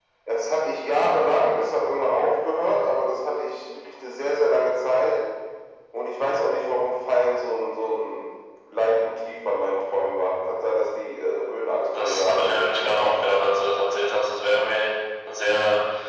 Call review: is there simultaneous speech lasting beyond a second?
Yes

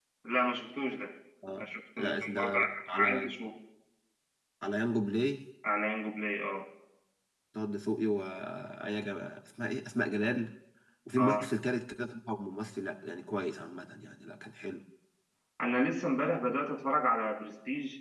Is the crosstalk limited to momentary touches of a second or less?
No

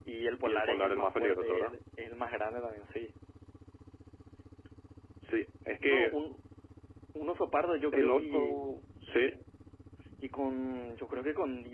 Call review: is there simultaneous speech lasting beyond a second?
Yes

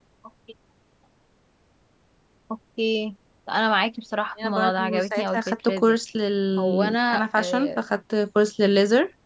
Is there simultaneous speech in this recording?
Yes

